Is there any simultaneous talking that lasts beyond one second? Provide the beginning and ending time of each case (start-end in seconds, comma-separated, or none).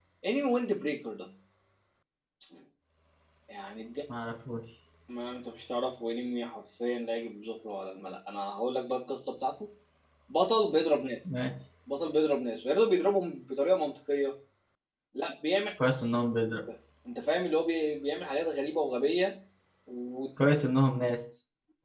none